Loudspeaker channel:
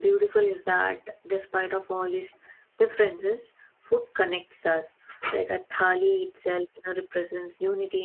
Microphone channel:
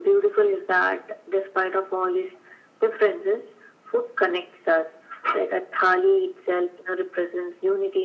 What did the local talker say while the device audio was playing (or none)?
none